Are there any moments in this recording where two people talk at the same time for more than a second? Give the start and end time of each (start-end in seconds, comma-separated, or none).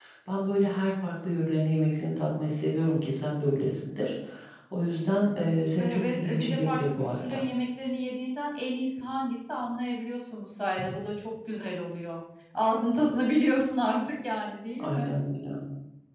5.8-7.4